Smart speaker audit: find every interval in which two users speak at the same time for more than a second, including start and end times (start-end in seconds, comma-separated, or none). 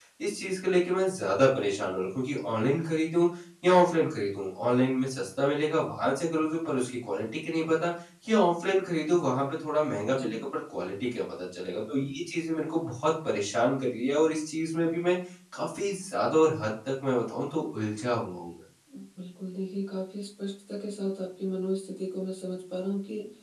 none